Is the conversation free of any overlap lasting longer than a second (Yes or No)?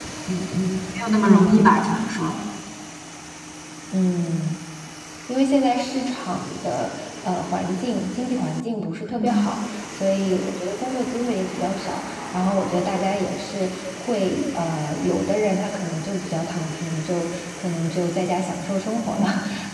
Yes